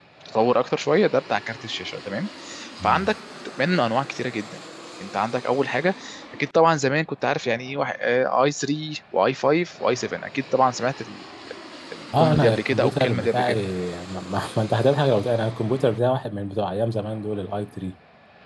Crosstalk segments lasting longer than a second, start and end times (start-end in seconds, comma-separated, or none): 12.2-13.6